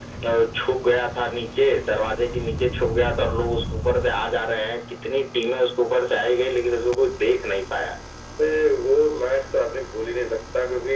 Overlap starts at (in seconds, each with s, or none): none